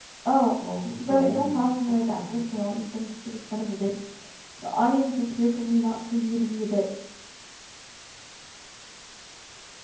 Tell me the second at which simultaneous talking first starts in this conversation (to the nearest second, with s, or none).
1 s